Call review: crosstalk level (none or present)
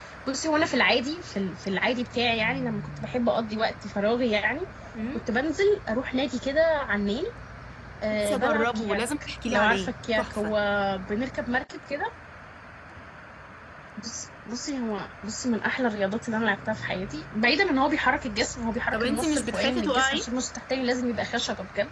present